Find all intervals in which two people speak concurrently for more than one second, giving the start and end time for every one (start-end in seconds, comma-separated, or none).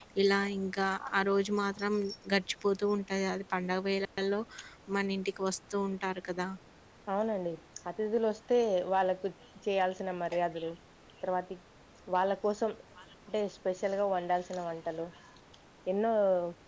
none